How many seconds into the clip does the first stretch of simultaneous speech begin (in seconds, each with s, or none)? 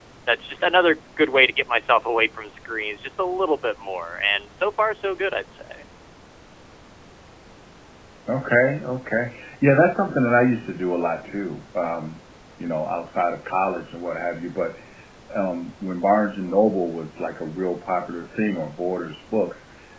none